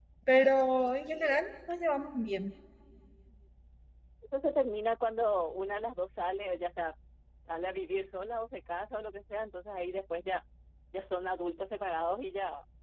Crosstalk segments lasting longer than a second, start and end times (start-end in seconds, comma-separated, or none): none